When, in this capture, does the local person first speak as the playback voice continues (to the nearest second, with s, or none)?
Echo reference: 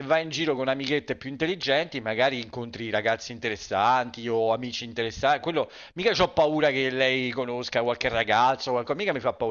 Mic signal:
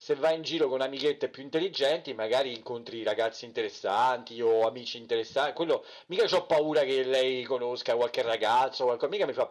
none